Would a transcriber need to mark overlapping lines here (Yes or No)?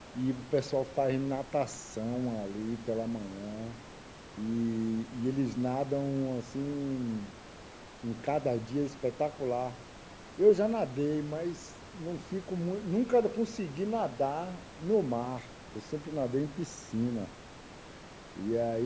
No